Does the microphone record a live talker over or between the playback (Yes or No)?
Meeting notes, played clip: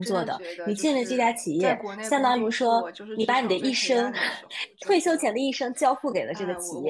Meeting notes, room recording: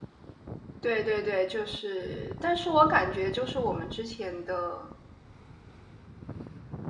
Yes